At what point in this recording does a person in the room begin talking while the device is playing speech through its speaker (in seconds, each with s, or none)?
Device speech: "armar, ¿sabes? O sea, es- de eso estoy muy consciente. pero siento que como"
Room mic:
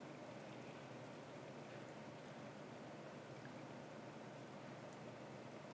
none